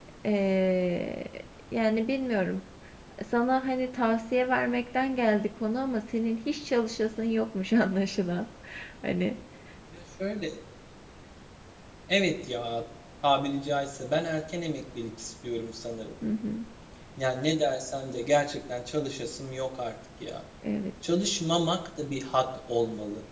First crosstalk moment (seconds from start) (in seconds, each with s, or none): none